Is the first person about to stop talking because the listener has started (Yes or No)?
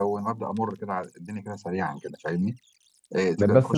Yes